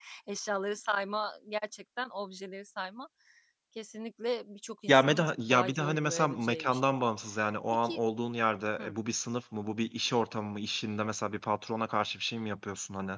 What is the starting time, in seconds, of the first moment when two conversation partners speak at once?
4.9 s

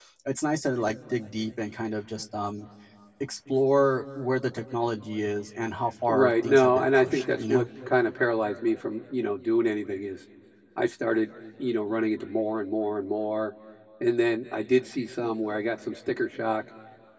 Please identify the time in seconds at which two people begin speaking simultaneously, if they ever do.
6.0 s

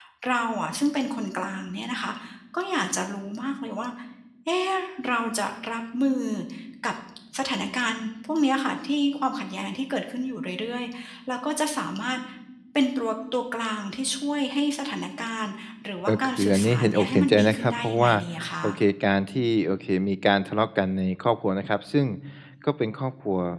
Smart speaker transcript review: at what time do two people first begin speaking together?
16.1 s

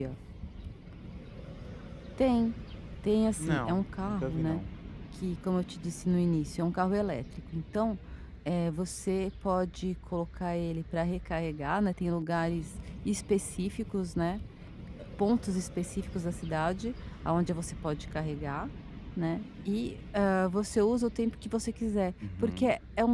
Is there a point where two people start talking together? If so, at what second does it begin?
3.4 s

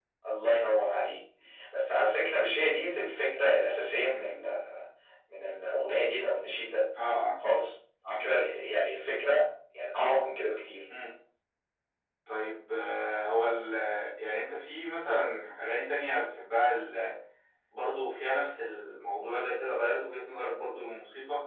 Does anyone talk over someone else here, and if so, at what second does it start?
none

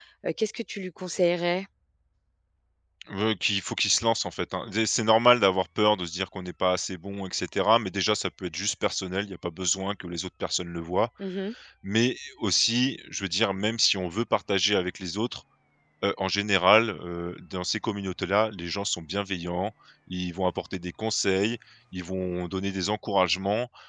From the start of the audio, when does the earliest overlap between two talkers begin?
none

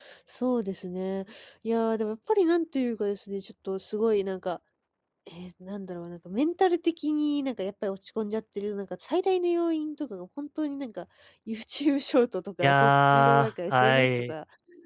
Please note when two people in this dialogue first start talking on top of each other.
12.6 s

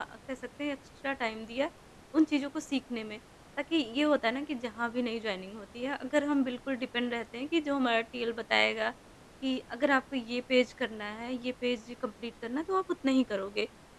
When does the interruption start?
none

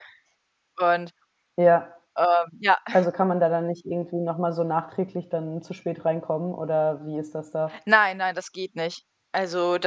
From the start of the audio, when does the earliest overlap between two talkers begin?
none

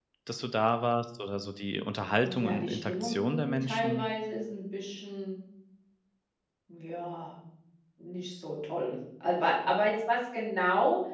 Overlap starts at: 2.2 s

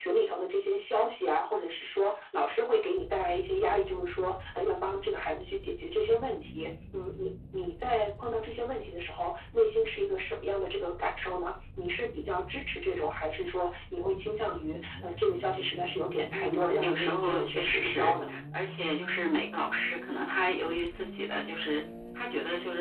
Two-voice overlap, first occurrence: 16.3 s

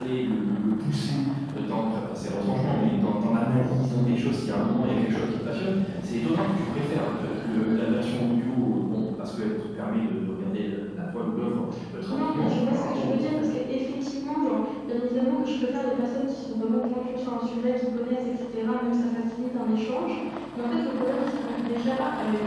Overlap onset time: 12.1 s

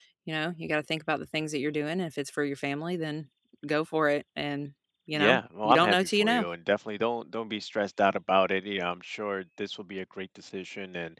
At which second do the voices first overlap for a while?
5.1 s

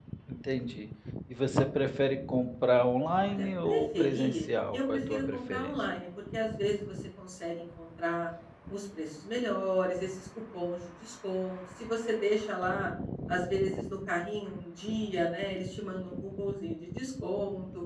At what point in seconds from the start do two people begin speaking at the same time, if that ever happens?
3.2 s

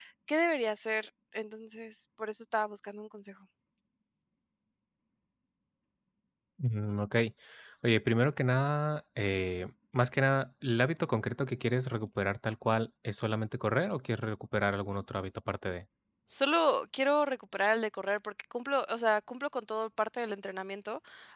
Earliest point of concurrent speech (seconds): none

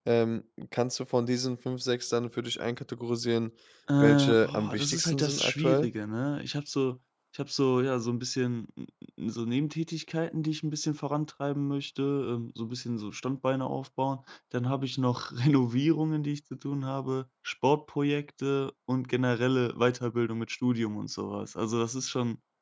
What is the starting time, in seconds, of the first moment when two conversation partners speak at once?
4.0 s

